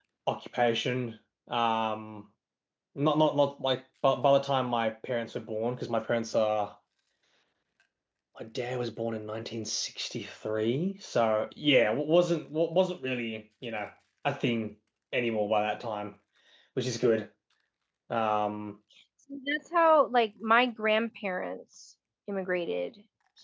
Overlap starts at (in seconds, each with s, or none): none